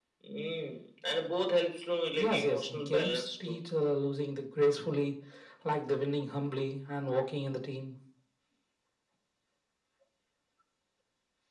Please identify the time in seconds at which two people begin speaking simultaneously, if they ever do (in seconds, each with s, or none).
2.2 s